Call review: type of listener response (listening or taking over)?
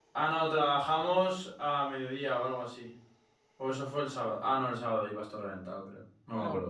taking over